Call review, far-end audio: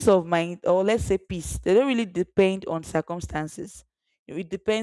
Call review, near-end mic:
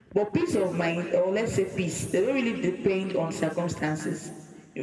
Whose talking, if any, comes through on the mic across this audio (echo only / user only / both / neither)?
echo only